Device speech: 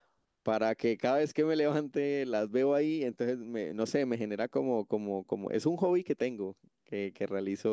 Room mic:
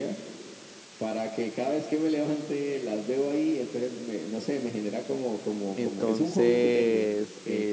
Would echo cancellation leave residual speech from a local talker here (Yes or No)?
Yes